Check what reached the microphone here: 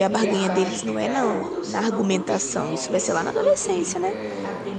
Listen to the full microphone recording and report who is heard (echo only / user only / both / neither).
both